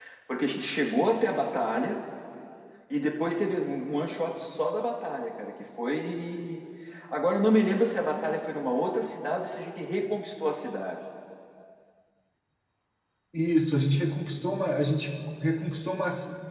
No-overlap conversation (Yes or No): Yes